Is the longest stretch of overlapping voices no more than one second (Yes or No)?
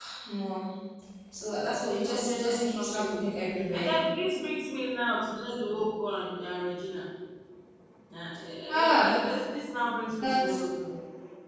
No